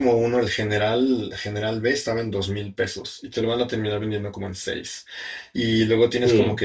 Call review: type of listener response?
listening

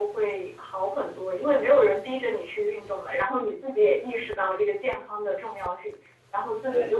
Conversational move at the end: listening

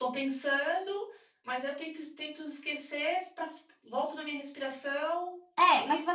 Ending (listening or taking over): taking over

